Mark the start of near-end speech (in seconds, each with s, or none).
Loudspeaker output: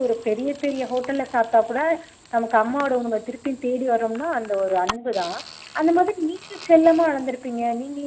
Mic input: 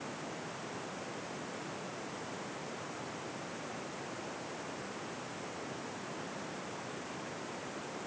none